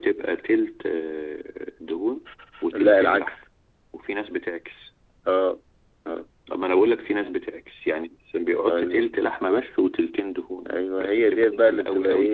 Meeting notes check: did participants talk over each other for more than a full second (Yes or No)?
Yes